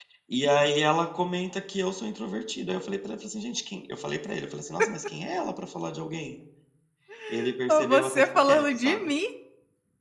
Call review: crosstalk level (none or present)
present